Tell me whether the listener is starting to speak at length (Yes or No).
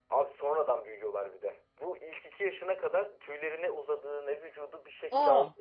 No